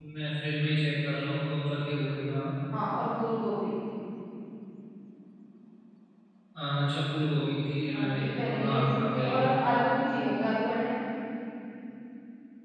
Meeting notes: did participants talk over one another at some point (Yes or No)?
Yes